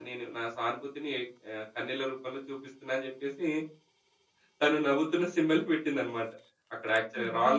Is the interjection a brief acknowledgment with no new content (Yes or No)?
Yes